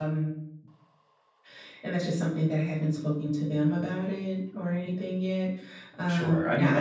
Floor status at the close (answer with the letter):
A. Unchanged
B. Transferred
B